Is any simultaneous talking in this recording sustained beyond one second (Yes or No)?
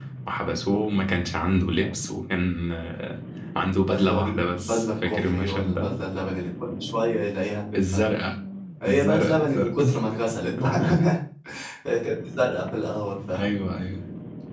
Yes